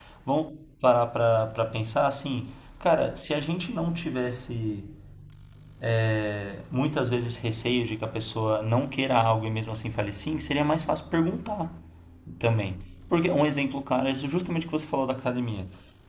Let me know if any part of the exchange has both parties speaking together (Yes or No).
No